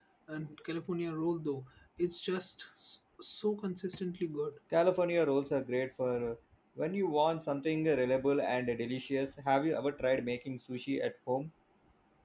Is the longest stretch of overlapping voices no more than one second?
Yes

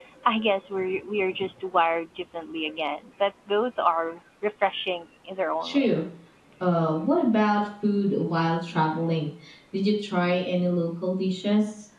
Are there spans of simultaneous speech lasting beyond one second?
No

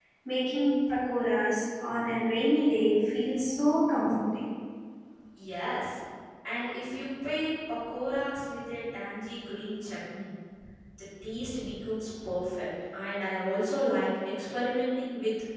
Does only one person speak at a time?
Yes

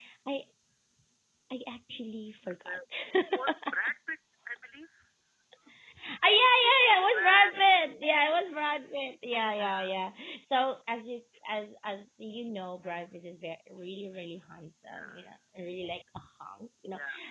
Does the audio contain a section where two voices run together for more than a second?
Yes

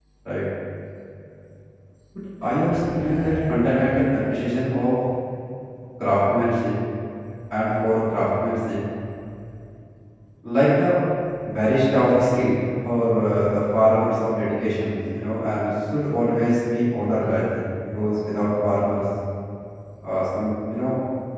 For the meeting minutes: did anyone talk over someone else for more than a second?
Yes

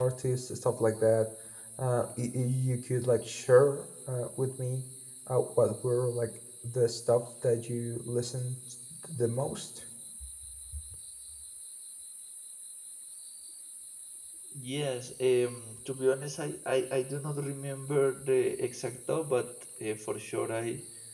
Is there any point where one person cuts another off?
No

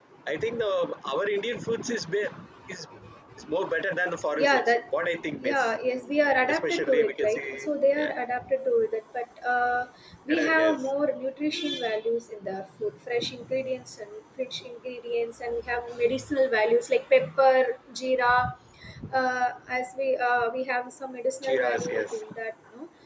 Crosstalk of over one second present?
Yes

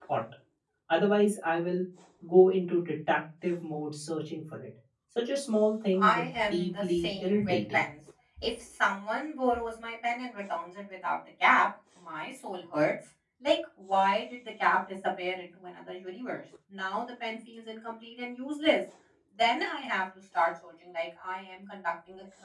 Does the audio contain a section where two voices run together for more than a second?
Yes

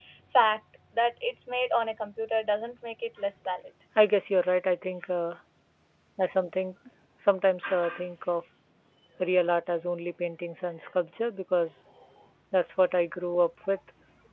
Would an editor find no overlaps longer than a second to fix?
Yes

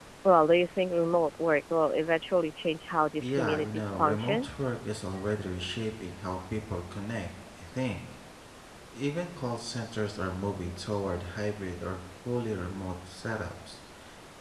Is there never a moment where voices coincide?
No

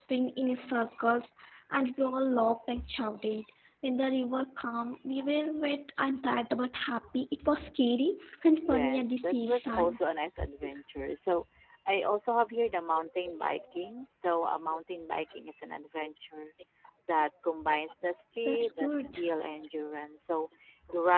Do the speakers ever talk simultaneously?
Yes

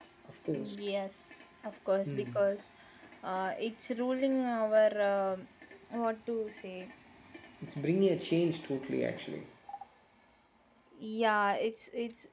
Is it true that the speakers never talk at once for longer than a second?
Yes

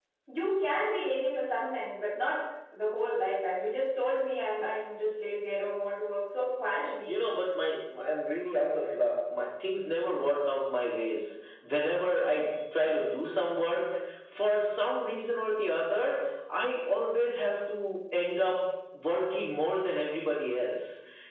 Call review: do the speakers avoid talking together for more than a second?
Yes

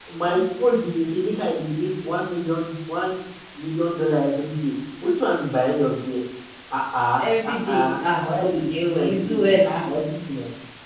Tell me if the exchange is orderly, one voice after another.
No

